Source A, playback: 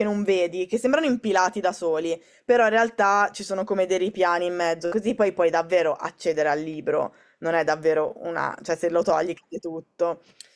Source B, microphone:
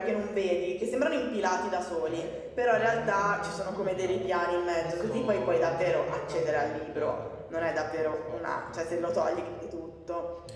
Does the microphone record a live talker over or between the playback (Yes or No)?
Yes